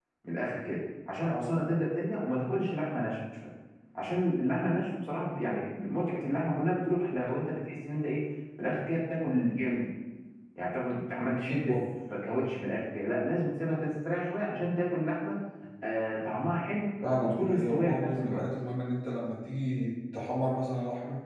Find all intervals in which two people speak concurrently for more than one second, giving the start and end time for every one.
17.2-18.4

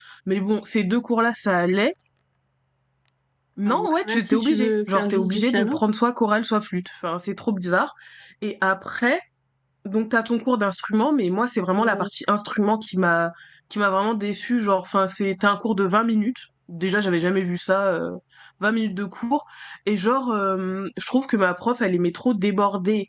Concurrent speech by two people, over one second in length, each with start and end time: 3.6-5.8

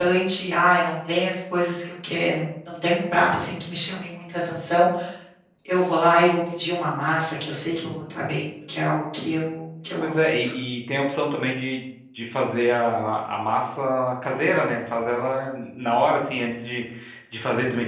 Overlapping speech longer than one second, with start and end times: none

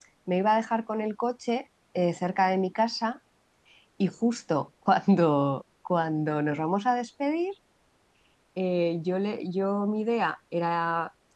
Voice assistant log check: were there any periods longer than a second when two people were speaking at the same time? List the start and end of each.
none

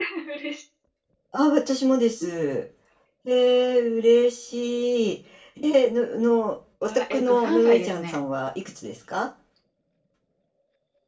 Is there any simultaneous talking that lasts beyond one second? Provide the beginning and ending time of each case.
6.8-8.2

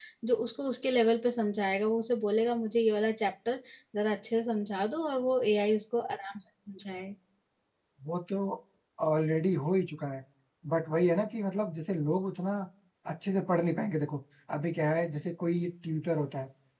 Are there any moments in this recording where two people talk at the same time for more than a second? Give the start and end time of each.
none

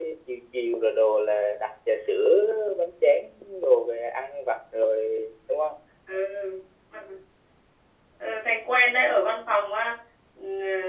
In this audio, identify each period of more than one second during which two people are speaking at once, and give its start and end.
none

